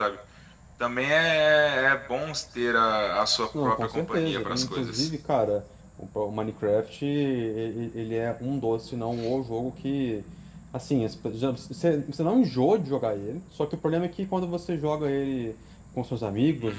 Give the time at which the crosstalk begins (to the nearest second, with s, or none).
4 s